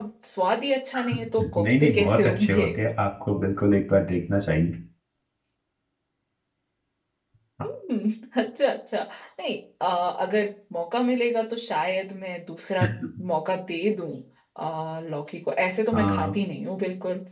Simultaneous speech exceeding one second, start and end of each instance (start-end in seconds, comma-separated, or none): 1.4-2.6